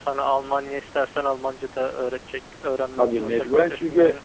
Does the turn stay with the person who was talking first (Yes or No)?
No